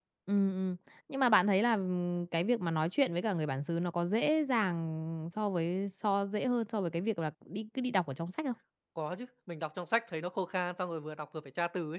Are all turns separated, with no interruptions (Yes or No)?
Yes